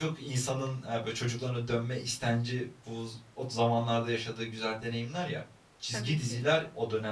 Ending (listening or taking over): listening